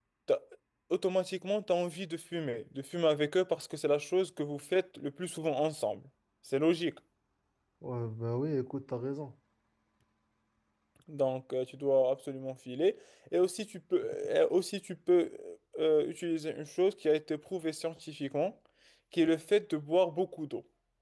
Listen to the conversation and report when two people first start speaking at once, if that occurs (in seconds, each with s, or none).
none